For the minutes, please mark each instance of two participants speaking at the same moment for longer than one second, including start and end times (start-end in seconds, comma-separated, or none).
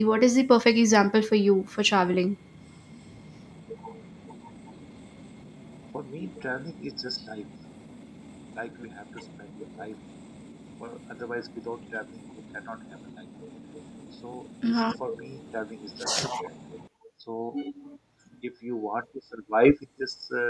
none